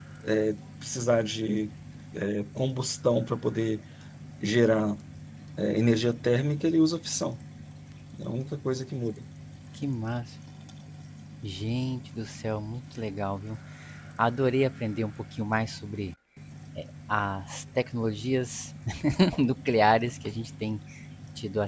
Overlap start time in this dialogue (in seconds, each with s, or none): none